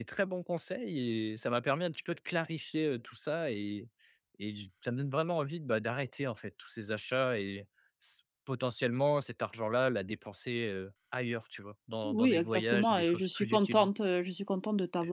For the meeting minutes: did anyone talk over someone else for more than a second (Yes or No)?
Yes